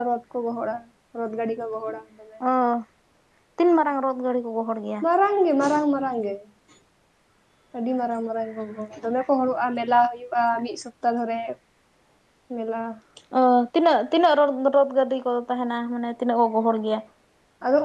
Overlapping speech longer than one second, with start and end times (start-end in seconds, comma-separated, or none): none